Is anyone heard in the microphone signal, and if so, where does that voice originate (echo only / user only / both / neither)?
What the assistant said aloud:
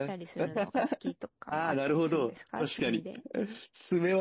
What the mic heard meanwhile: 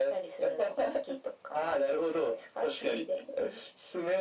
echo only